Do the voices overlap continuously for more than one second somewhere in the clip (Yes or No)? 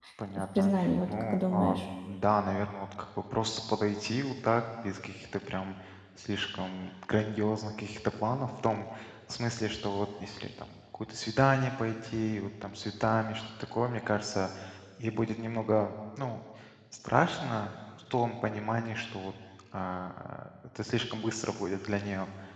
Yes